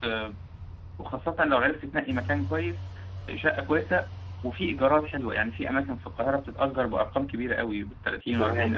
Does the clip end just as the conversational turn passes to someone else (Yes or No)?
Yes